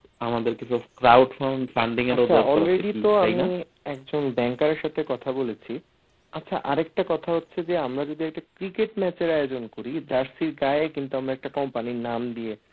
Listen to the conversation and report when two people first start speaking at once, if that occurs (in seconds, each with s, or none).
2.1 s